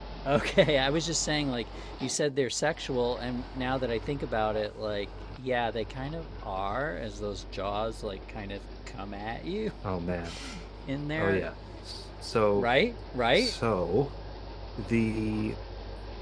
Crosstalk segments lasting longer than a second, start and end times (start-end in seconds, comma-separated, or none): none